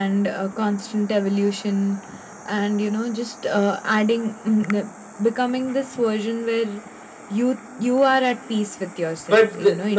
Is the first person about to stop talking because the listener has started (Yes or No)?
Yes